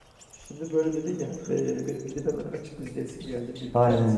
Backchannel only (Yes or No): No